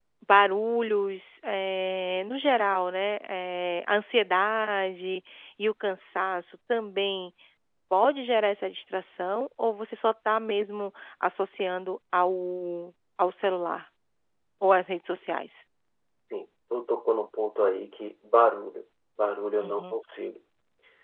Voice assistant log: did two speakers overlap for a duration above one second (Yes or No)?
No